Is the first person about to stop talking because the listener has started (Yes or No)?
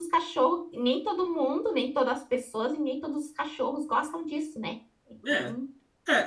Yes